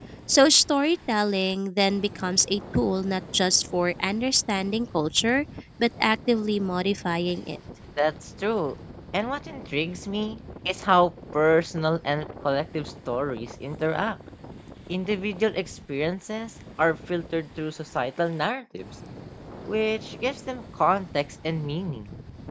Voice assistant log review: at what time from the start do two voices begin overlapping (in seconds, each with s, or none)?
none